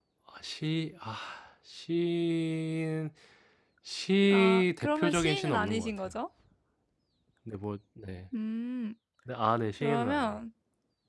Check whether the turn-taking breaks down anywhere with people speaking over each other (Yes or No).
Yes